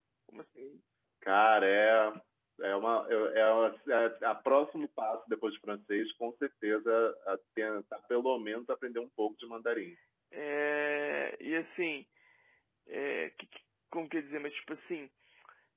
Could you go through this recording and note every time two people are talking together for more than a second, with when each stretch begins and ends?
none

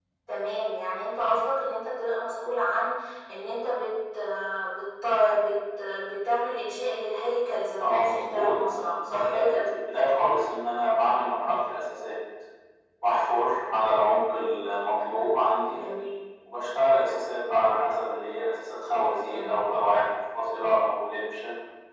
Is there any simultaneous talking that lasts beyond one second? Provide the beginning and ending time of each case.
7.8-9.7

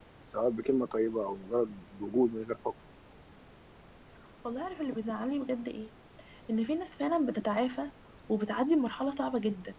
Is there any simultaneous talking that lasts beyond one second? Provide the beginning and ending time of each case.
none

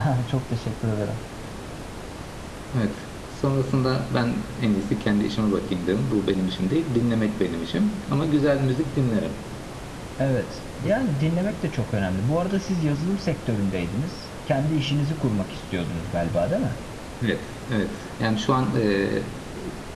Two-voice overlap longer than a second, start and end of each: none

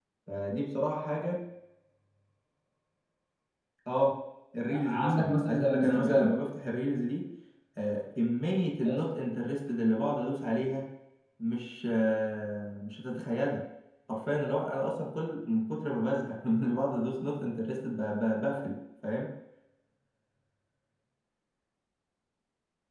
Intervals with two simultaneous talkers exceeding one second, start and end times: 4.7-6.4

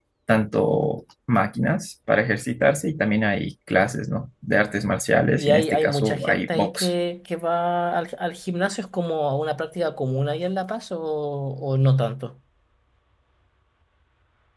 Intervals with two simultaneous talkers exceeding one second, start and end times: 5.3-6.9

